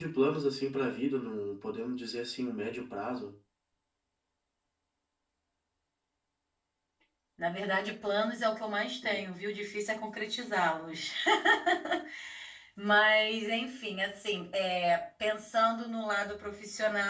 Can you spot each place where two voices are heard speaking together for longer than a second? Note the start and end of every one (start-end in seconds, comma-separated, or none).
none